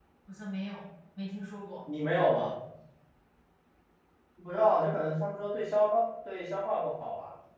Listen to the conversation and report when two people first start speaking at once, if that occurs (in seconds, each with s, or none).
none